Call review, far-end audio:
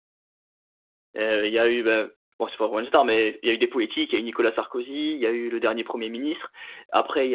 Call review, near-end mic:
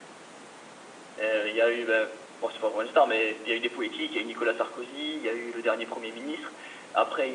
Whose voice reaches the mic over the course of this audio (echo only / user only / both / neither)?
echo only